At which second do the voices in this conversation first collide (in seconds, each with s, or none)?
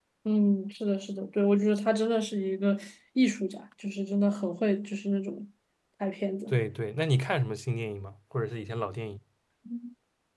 none